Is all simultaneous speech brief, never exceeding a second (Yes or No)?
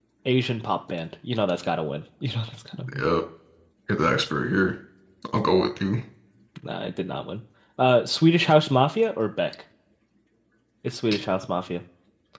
Yes